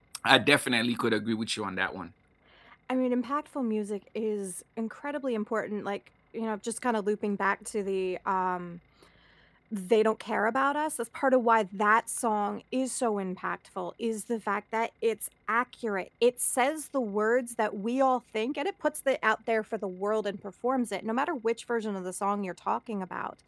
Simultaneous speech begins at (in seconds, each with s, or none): none